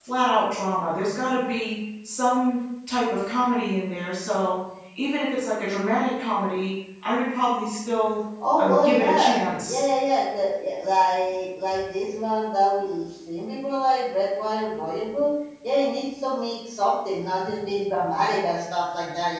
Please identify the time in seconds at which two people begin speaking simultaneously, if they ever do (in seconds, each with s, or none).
8.4 s